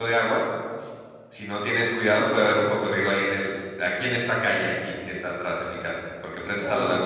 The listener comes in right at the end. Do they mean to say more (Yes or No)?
Yes